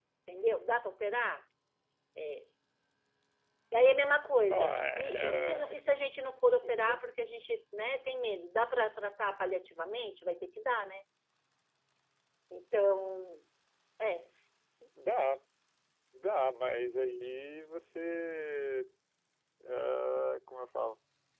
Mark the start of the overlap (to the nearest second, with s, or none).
4 s